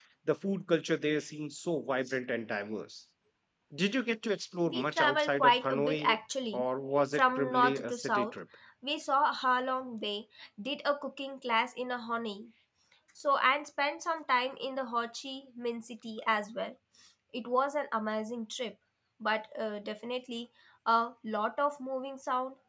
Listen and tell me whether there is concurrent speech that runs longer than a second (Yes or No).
Yes